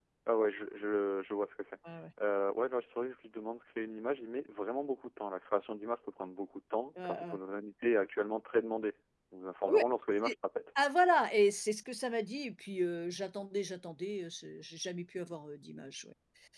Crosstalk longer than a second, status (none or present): none